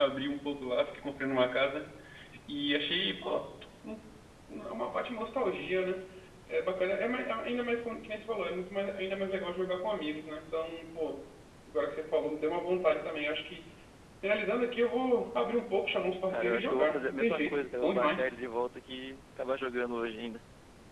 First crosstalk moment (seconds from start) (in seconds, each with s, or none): 16.3 s